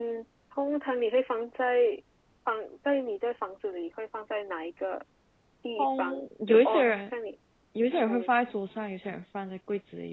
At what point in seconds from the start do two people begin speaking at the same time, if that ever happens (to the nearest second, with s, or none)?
6 s